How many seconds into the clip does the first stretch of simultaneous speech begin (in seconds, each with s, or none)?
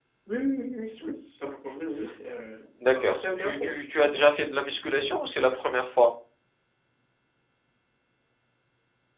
2.8 s